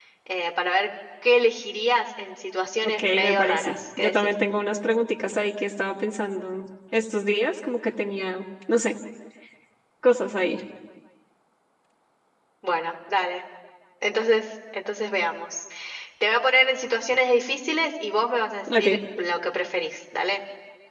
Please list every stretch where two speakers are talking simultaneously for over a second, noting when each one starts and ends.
2.8-4.3

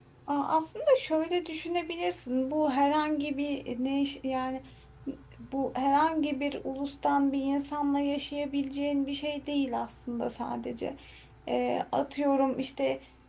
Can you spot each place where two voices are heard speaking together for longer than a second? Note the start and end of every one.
none

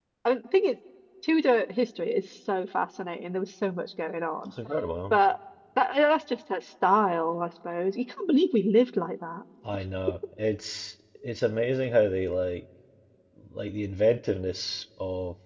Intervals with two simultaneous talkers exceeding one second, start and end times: none

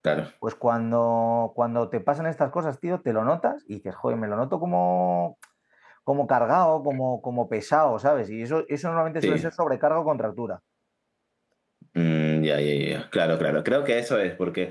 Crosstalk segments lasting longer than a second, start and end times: none

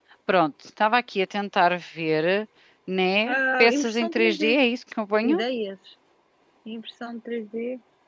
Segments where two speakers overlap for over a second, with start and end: 3.3-4.6

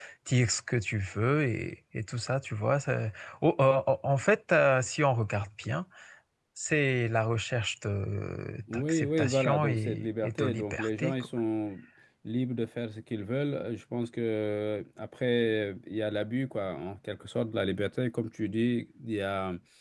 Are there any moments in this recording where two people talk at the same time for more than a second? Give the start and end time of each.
8.7-11.1

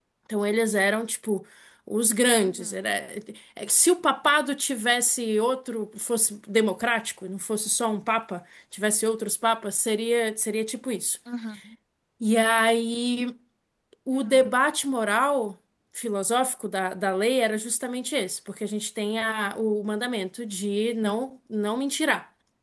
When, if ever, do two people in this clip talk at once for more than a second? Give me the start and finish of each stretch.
none

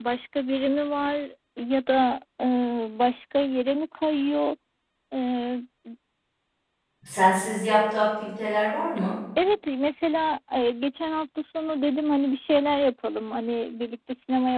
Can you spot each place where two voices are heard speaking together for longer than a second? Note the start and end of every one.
none

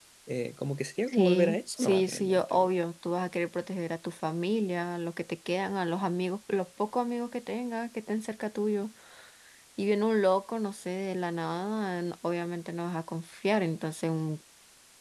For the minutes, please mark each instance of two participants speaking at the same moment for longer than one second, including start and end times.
1.1-2.7

